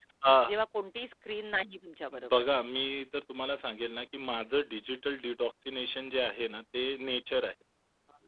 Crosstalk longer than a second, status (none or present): none